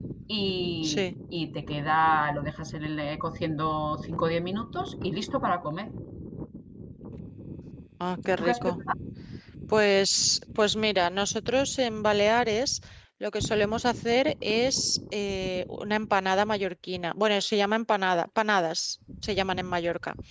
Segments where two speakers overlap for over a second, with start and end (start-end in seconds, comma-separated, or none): none